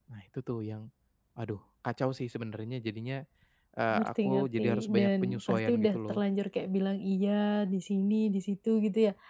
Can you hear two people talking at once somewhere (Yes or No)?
Yes